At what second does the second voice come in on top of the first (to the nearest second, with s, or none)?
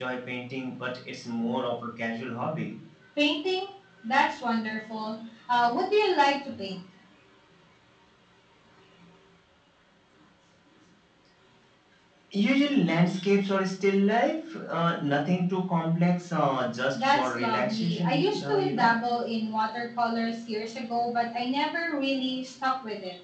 17 s